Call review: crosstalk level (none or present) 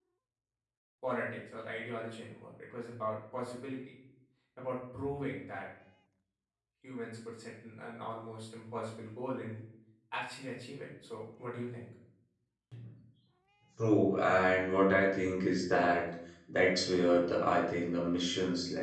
none